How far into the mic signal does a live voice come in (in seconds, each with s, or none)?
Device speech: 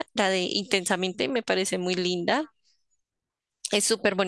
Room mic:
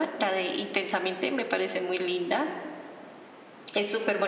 none